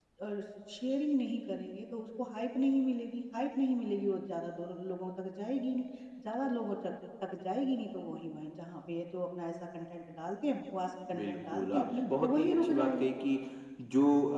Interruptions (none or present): present